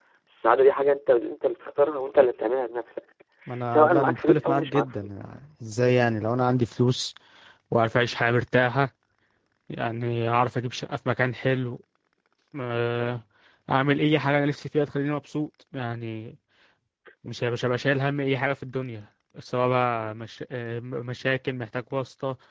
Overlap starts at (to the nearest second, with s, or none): 4 s